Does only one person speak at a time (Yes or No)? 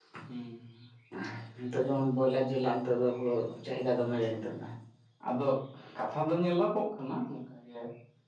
Yes